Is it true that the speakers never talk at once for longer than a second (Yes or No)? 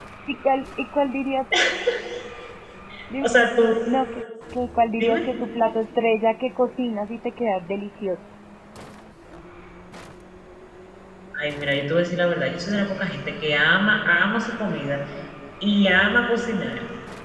Yes